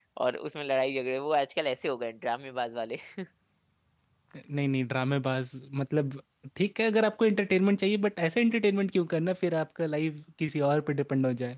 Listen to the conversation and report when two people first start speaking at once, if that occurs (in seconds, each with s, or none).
none